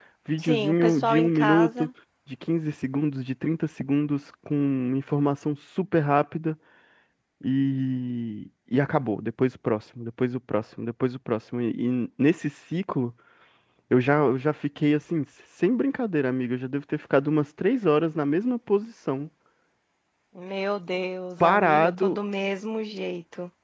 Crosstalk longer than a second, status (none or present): present